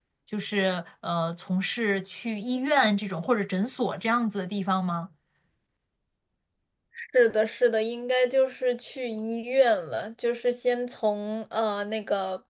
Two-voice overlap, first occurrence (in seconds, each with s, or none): none